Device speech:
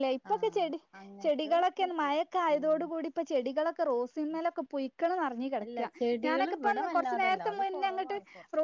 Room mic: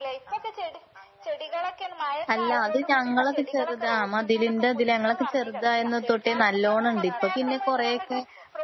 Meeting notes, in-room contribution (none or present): present